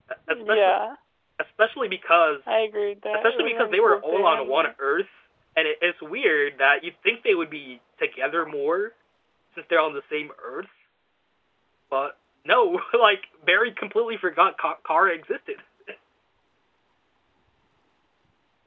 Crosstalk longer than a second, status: present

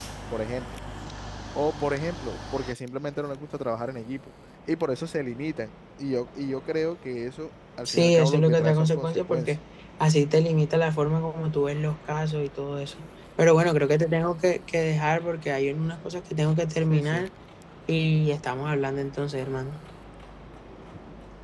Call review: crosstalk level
present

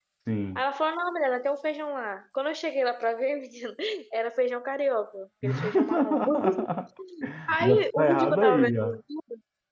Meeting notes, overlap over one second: present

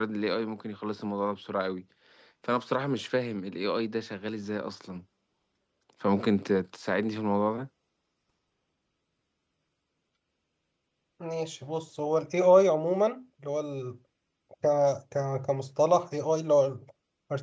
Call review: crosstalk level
none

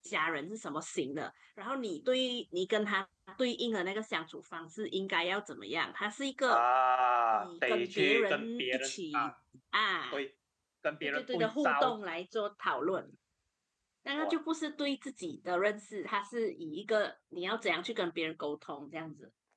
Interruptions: present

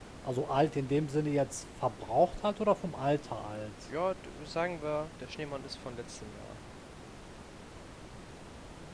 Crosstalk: none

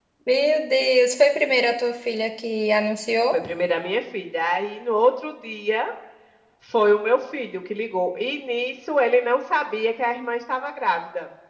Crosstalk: none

